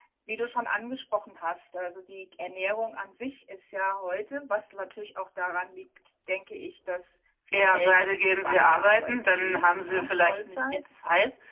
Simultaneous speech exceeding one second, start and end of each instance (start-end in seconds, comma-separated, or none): 7.5-10.6